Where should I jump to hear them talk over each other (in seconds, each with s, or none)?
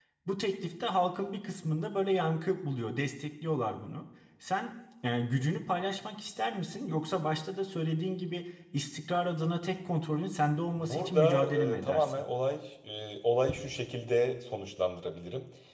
10.8 s